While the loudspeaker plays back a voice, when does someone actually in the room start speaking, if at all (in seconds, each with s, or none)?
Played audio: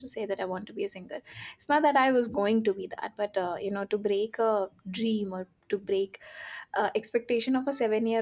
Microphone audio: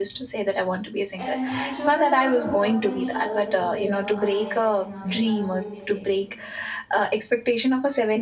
1.2 s